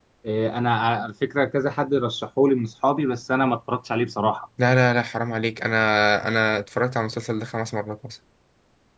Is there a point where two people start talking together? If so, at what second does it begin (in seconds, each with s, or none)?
none